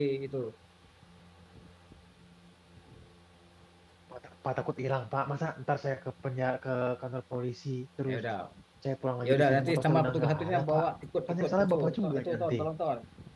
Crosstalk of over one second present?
Yes, from 9.2 s

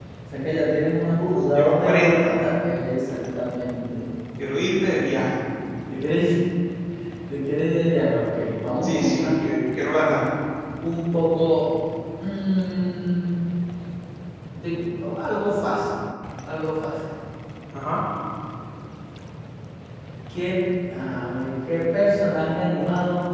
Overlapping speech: Yes, from 1.1 s

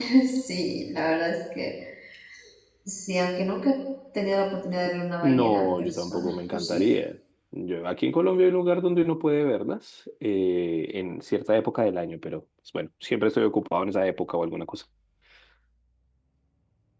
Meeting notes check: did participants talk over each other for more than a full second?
Yes, from 5.2 s

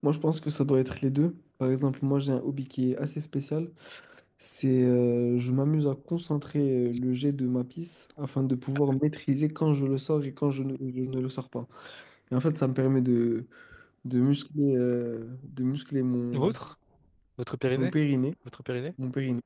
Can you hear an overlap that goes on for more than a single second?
No

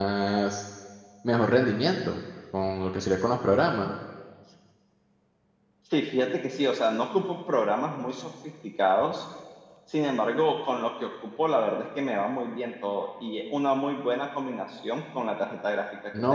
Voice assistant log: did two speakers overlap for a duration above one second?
No

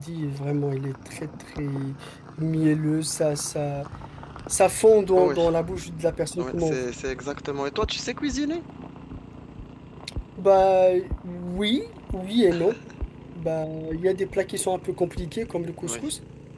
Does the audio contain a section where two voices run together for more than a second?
No

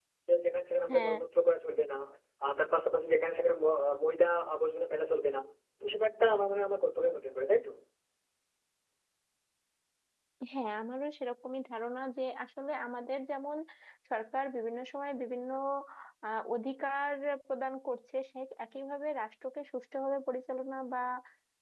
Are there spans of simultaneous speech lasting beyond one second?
No

